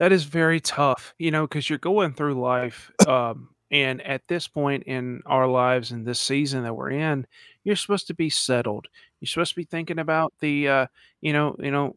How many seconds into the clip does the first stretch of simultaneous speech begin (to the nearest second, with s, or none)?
none